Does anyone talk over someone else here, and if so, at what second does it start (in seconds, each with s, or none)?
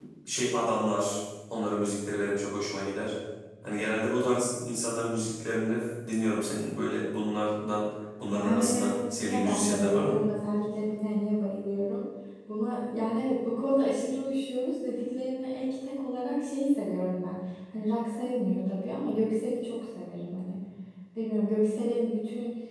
8.3 s